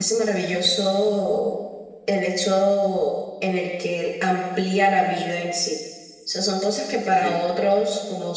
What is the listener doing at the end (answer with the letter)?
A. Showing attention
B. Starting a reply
A